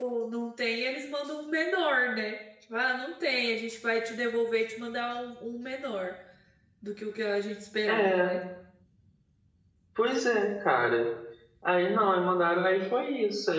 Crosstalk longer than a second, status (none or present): none